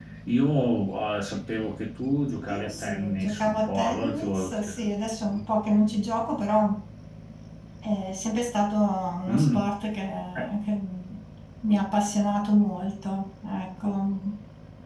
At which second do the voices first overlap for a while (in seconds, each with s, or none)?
2.4 s